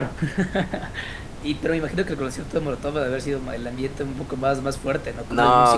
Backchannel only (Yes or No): No